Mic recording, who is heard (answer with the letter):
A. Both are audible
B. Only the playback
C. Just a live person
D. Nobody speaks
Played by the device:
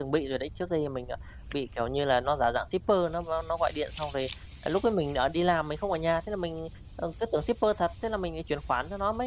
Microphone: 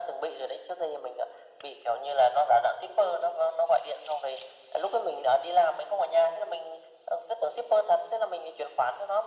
B